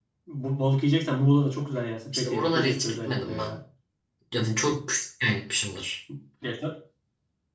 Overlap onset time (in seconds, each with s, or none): 2.1 s